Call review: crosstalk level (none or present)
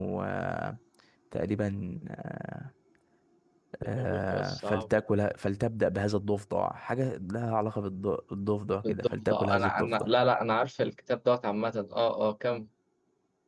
present